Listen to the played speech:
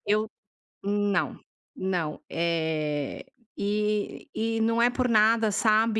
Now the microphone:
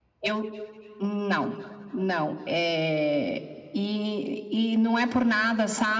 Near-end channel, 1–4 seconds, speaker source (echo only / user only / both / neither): echo only